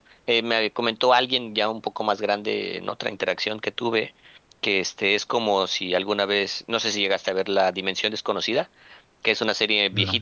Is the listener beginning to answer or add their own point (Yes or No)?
No